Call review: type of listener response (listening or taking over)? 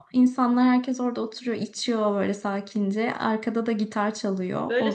taking over